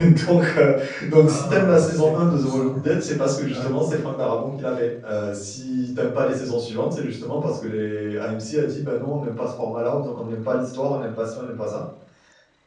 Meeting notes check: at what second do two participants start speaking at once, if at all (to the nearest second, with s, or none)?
1 s